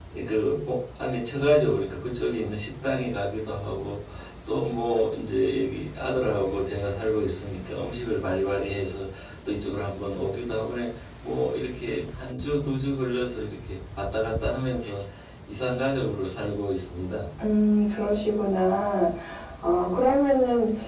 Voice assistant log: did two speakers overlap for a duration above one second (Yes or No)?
No